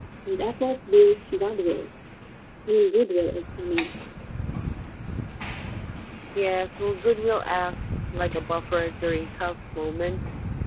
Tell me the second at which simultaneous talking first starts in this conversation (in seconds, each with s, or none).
none